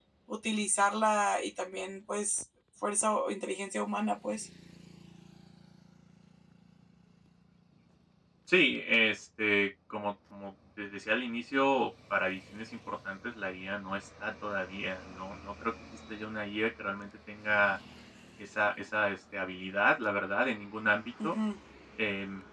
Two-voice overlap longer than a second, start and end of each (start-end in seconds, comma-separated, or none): none